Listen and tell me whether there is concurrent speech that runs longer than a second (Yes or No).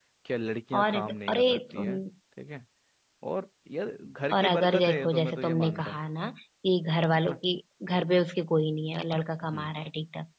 Yes